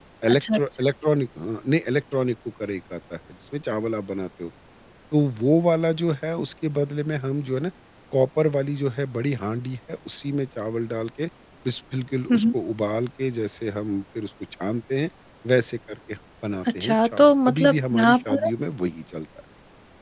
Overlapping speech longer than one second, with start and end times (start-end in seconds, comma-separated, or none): 16.8-18.5